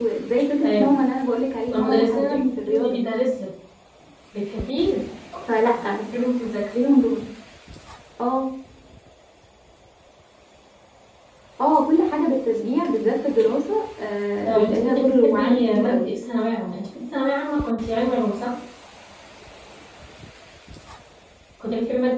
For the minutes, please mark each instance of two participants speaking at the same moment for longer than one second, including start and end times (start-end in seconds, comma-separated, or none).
1.7-3.0, 14.4-16.1